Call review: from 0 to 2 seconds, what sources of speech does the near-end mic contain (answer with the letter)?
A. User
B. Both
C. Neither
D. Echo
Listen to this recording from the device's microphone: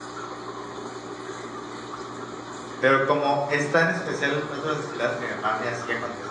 C